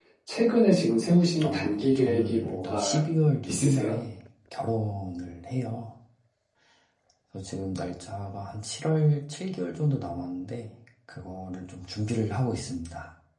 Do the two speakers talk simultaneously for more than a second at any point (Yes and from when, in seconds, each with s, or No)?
Yes, from 1.4 s